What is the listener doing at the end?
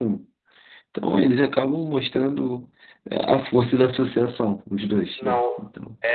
taking over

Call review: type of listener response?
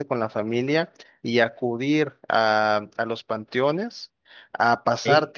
listening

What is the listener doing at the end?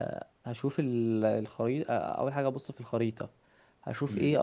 taking over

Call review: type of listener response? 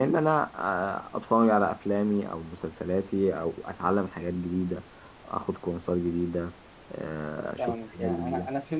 taking over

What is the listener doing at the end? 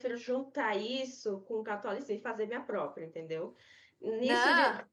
listening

